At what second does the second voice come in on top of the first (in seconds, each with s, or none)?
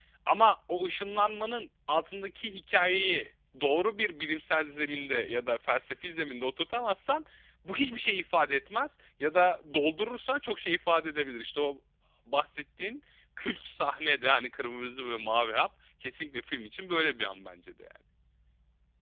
none